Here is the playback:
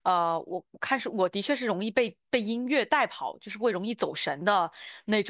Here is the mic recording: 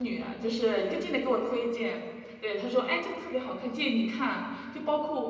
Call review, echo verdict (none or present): none